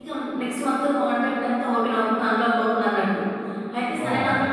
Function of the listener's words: listening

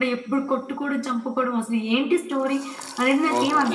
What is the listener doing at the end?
taking over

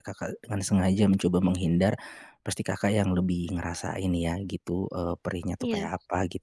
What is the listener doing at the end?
listening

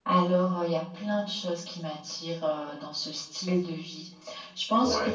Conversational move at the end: listening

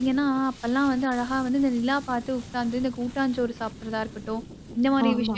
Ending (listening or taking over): listening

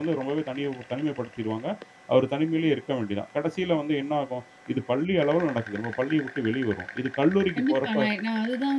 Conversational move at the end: taking over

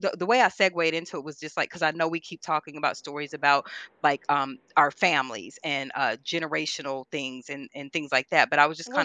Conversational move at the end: taking over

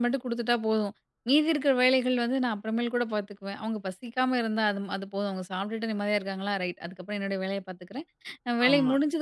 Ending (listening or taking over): listening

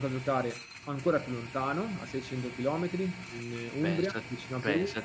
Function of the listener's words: taking over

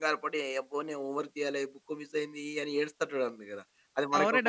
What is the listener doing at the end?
taking over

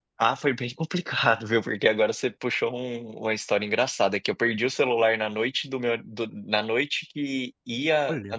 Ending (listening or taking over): listening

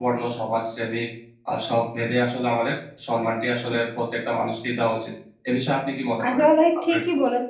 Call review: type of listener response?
taking over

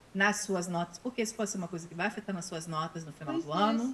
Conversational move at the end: taking over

